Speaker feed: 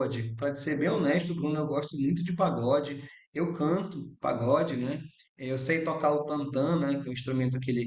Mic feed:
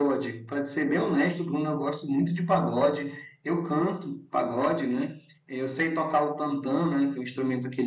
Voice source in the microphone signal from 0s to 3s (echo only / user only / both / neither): echo only